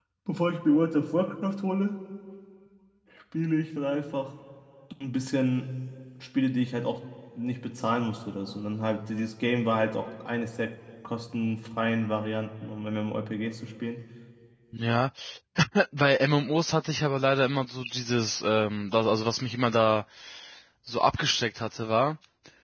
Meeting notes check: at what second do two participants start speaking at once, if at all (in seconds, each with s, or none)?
none